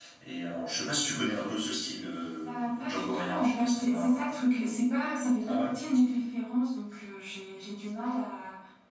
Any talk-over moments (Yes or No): Yes